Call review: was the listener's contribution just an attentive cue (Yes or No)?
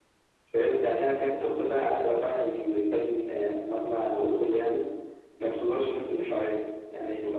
Yes